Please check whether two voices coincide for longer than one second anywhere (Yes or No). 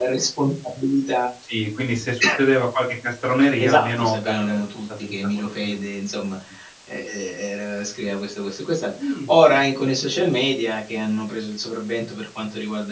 Yes